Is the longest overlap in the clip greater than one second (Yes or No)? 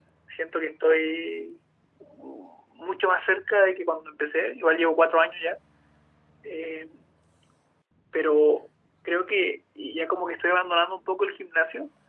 No